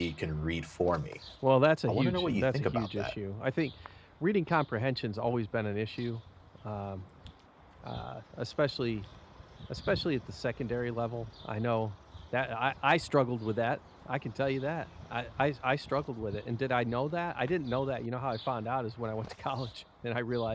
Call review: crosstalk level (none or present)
present